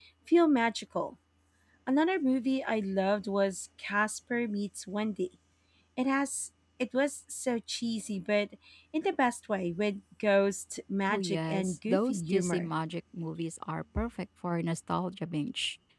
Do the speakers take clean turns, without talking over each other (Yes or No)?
No